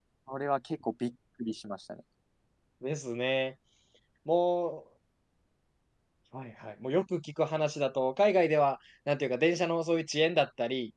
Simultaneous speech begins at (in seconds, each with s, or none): none